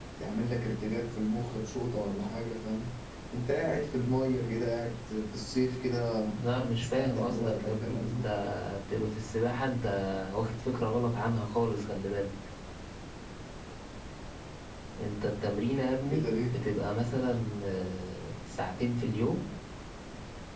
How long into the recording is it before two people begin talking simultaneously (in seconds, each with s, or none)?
6.8 s